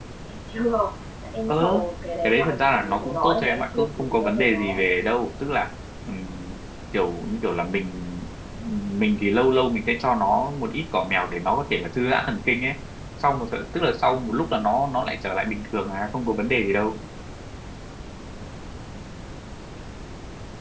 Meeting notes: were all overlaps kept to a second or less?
No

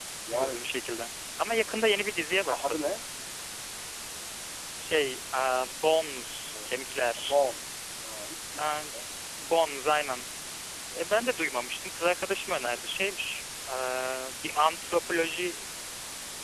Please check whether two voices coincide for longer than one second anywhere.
No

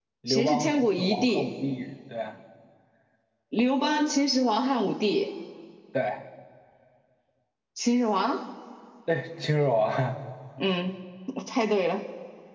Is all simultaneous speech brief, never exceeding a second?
No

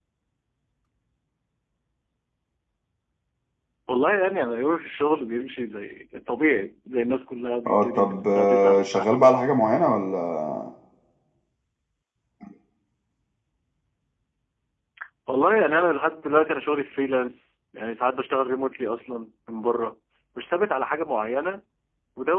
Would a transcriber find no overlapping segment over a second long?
No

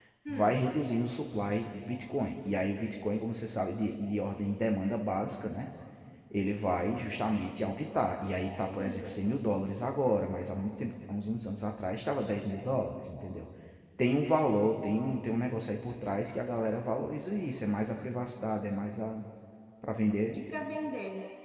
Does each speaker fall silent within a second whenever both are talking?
Yes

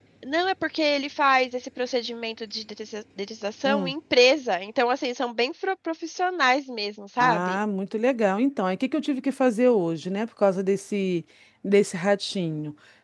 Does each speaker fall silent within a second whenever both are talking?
Yes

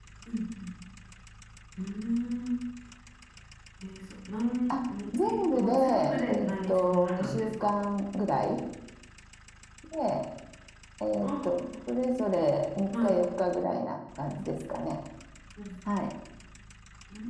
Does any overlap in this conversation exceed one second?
Yes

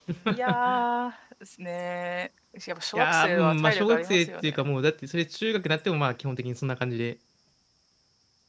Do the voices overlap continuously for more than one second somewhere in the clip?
Yes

